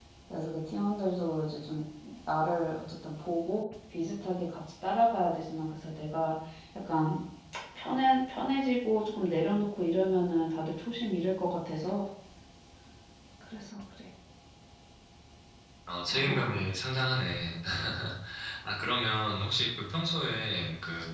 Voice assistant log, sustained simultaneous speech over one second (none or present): none